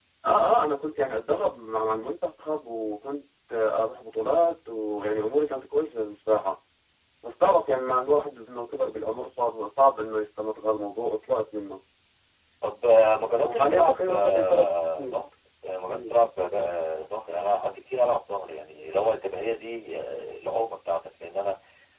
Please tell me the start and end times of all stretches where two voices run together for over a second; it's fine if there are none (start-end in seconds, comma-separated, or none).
13.4-15.1